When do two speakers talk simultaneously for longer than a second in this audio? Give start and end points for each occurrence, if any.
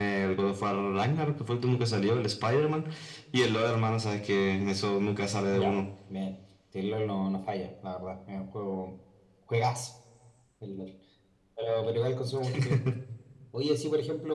none

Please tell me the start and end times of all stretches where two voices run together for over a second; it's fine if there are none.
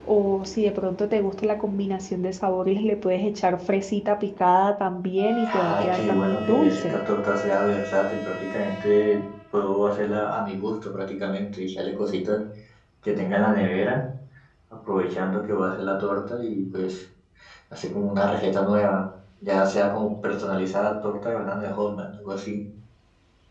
5.5-7.0

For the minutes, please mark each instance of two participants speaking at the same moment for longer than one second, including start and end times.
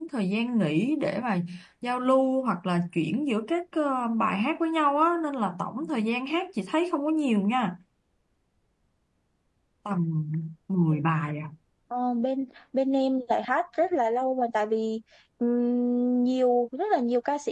none

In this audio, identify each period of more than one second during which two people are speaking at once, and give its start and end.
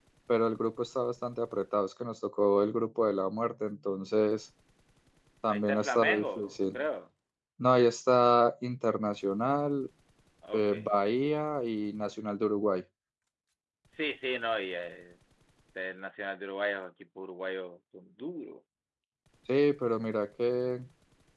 5.5-6.8

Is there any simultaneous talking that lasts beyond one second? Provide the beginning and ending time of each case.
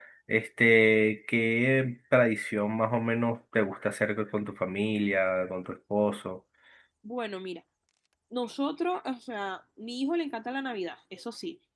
none

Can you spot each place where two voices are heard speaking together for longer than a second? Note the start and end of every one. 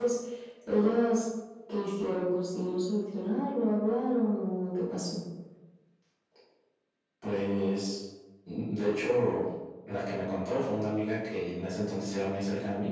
none

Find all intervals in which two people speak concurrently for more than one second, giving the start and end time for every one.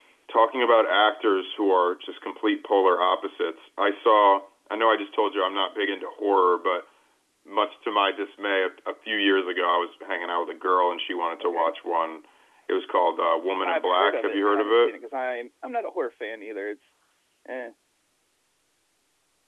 13.6-14.9

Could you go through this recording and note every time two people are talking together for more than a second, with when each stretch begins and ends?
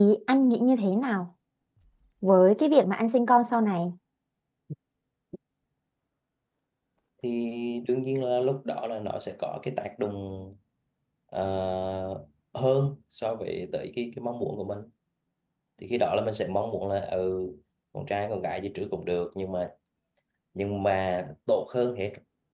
none

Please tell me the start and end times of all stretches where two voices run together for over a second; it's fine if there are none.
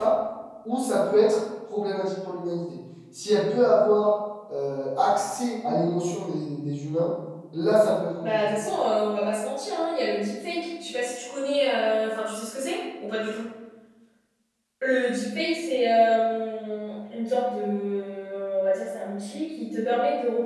none

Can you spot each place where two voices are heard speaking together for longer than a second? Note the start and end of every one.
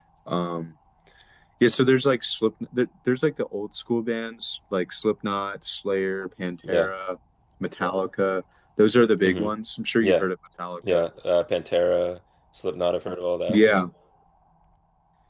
none

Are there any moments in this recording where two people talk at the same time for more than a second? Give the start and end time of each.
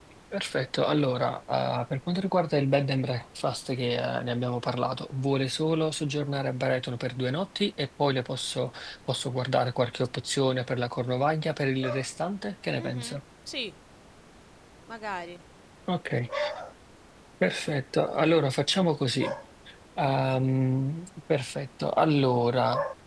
none

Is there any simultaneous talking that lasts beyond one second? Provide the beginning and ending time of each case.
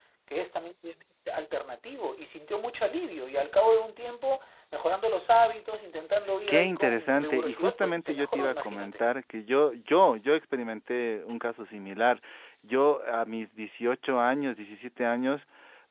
6.5-9.0

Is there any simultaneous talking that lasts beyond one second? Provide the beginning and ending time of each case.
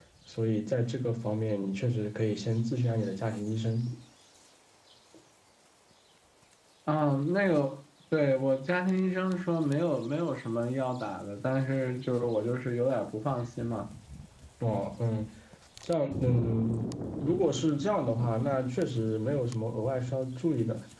none

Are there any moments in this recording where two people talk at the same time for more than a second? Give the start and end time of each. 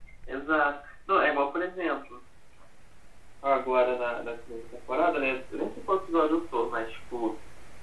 none

